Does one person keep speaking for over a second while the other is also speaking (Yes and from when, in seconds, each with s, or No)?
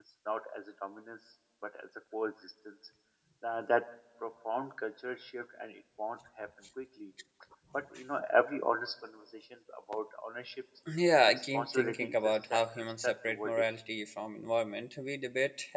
Yes, from 11.2 s